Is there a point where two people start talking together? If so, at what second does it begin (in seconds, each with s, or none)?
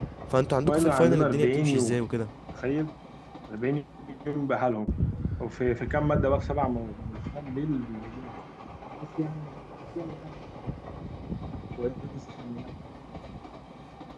0.7 s